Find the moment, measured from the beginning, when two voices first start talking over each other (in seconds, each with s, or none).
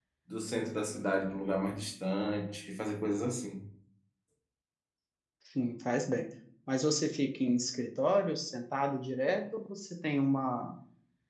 none